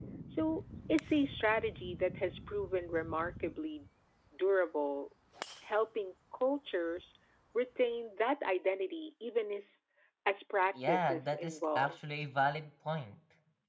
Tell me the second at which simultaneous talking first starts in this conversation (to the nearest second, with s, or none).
11 s